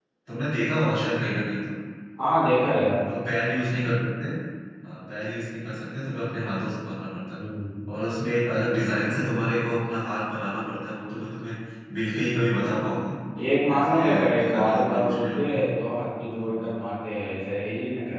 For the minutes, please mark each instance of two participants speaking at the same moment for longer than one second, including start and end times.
13.8-15.5

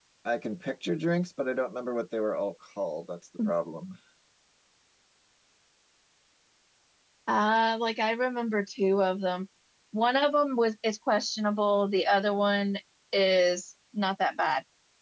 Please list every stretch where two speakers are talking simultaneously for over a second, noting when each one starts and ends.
none

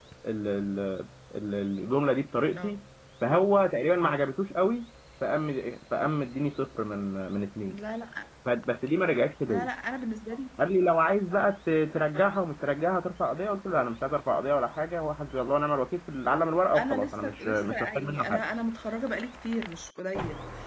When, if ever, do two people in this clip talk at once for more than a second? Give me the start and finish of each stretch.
16.8-18.5

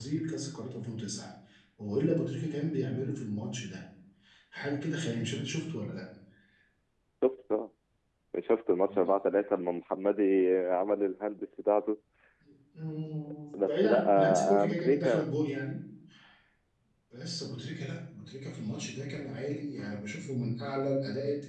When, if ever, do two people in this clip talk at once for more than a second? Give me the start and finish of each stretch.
13.6-15.3

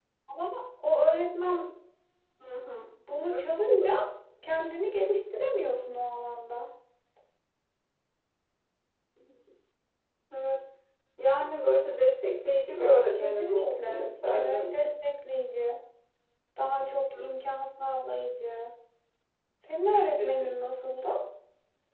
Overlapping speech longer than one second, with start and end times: 13.1-14.8

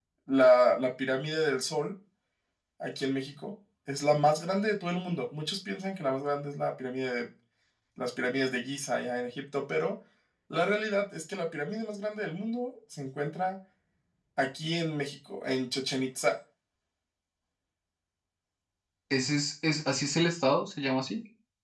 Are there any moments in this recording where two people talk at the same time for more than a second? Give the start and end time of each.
none

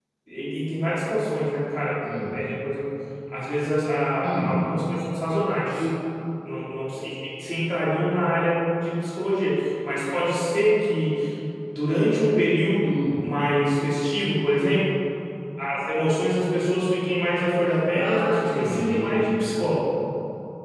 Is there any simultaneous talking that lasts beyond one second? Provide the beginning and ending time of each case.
17.9-19.2

